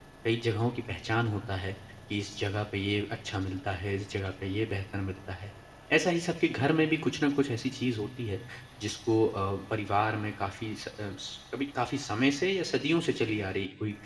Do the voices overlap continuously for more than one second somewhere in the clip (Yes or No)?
No